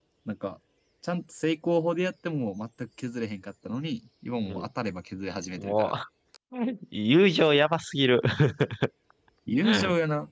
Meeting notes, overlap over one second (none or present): none